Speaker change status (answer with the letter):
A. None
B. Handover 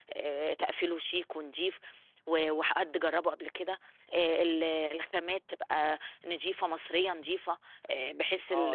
B